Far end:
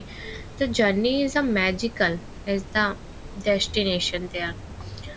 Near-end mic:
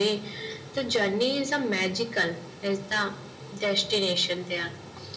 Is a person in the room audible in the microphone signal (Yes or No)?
No